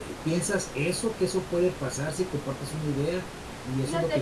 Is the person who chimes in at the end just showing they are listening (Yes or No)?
Yes